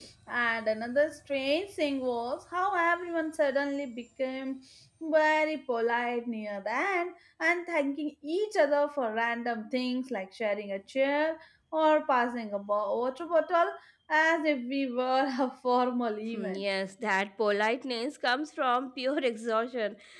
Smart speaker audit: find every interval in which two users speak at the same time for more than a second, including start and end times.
none

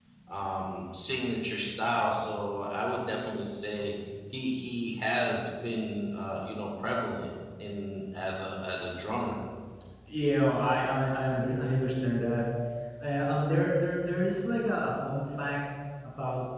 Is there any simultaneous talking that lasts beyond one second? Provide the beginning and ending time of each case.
none

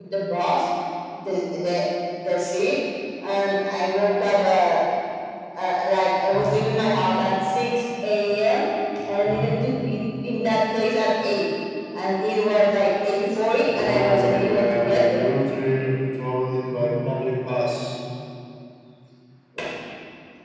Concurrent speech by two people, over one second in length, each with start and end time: 13.7-15.2

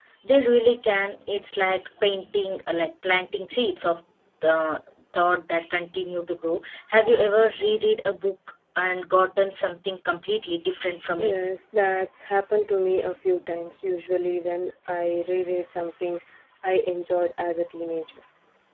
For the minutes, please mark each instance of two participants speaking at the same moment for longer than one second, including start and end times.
none

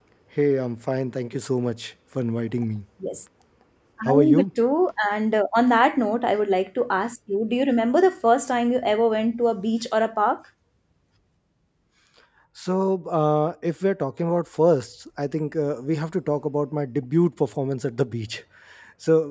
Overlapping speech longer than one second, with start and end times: none

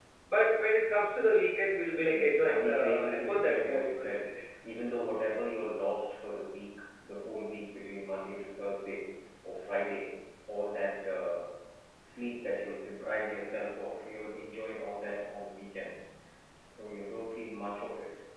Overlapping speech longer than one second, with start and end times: 2.1-4.3

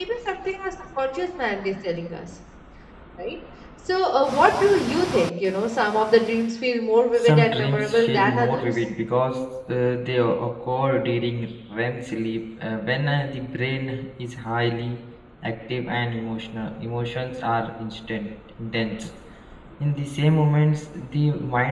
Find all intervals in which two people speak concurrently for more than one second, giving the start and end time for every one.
7.2-8.7

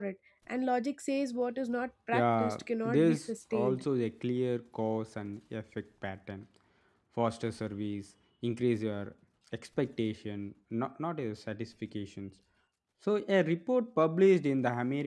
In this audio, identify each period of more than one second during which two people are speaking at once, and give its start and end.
2.1-3.8

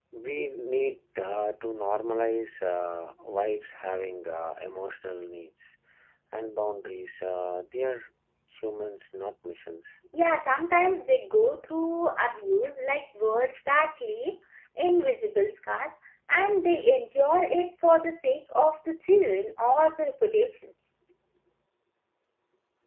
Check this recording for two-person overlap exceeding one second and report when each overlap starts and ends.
none

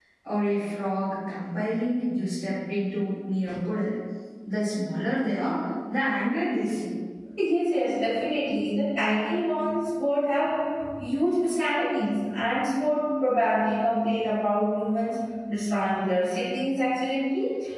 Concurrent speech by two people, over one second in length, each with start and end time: none

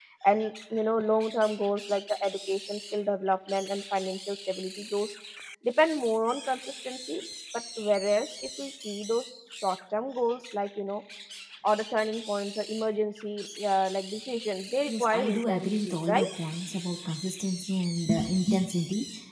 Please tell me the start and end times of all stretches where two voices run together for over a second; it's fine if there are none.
14.9-16.2

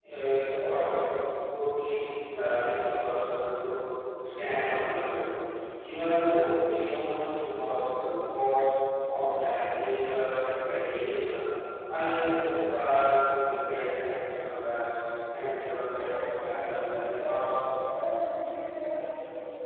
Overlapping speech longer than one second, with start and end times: 15.7-17.3

